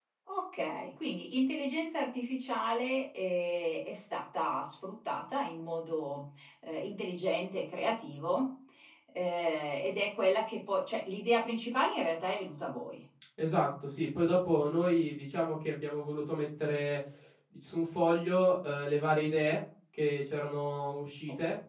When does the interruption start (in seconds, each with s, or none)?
none